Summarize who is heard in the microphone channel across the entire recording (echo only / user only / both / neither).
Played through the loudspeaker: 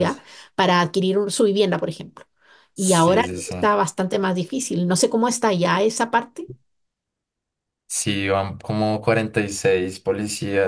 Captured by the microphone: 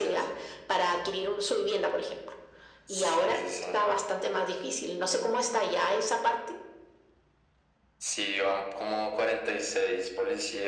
echo only